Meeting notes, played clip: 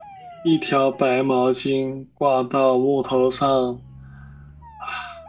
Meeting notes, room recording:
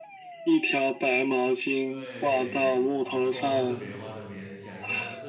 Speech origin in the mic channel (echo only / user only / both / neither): both